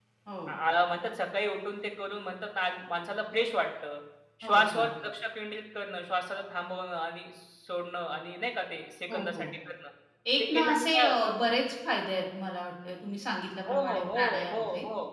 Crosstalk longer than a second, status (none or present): present